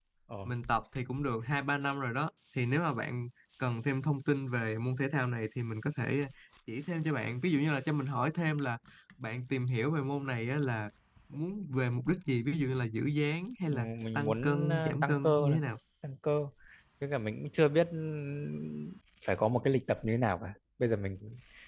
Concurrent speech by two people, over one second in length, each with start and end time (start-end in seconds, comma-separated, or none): 13.7-15.6